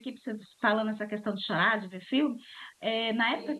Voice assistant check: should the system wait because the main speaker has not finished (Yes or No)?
Yes